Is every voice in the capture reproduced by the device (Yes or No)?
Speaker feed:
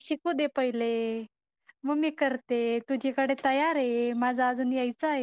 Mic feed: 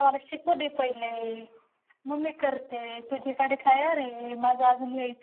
Yes